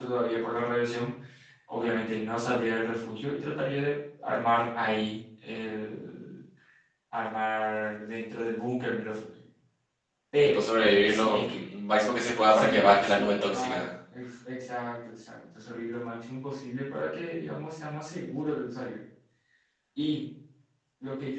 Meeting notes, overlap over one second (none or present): present